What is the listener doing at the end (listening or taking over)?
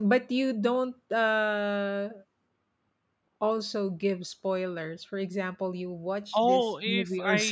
taking over